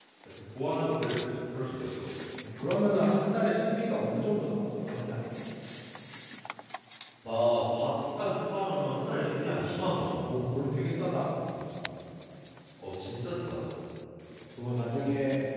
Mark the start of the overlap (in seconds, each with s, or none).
none